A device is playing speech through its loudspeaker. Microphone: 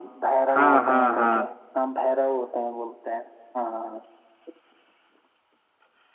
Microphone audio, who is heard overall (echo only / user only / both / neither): both